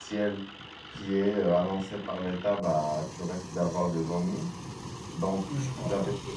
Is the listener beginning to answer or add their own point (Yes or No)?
No